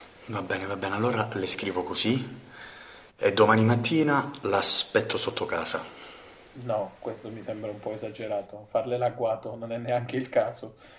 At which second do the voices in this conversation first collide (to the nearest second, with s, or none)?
none